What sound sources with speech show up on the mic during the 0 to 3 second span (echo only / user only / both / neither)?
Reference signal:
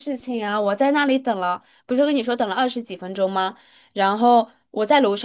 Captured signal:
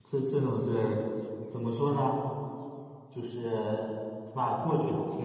user only